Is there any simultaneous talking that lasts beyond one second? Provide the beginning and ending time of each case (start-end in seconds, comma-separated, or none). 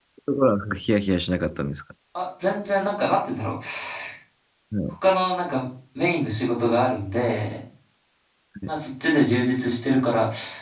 none